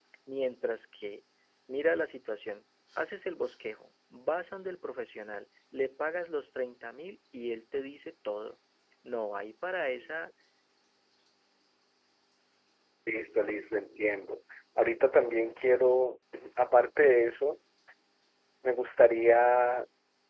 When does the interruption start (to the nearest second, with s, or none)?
none